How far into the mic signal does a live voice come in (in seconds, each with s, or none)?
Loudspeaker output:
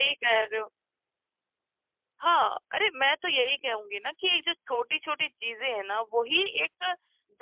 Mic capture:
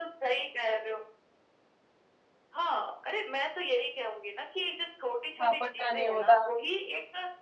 5.4 s